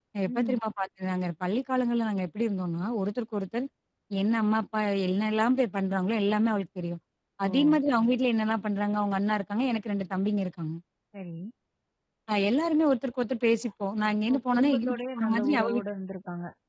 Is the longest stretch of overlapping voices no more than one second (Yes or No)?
No